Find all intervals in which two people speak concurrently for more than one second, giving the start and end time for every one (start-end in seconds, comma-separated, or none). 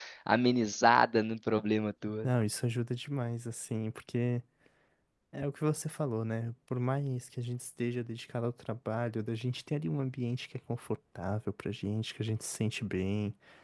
none